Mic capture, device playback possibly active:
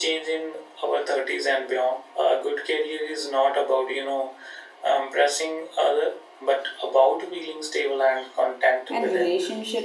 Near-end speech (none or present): present